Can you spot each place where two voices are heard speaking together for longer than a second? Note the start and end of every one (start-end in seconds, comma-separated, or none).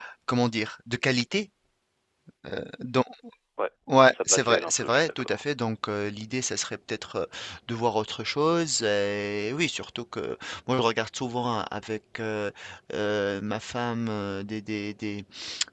4.1-5.4